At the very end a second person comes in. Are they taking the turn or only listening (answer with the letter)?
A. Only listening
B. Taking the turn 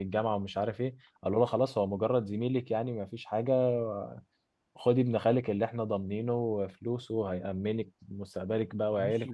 B